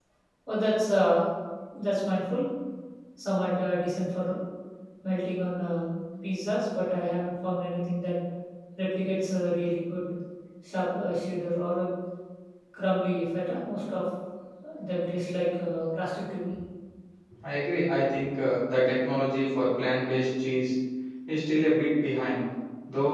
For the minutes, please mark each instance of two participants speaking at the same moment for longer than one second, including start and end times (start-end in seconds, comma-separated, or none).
none